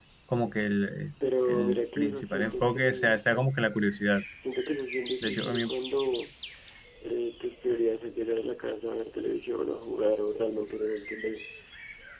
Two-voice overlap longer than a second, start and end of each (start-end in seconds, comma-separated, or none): 1.4-3.2